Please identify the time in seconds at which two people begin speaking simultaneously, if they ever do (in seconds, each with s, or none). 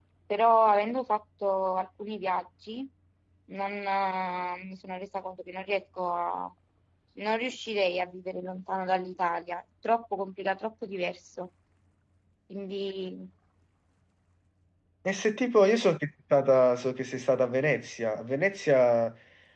none